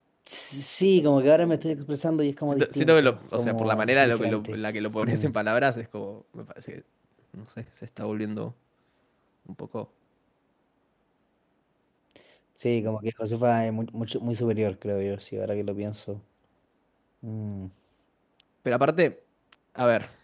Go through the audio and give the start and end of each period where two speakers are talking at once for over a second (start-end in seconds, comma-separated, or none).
2.5-4.6